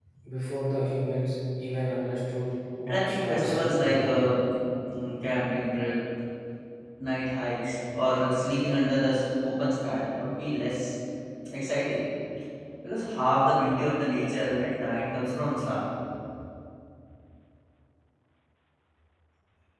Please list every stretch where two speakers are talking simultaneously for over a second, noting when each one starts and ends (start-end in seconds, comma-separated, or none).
2.9-4.1